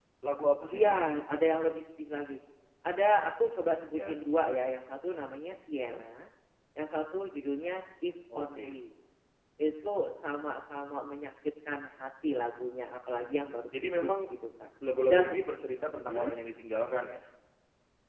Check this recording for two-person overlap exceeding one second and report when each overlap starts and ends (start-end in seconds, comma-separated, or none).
none